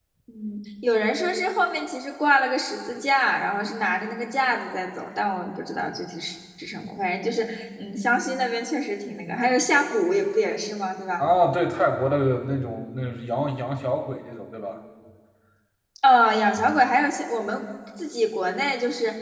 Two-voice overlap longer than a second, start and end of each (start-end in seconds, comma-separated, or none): none